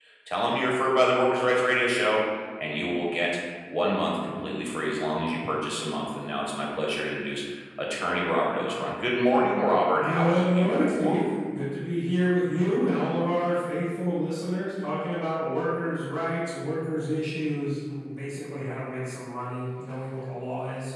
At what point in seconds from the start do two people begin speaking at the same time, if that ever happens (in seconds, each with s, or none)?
9.9 s